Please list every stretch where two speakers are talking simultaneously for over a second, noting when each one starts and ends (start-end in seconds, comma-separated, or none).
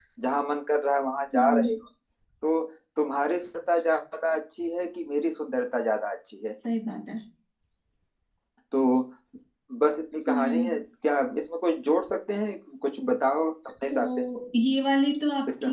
none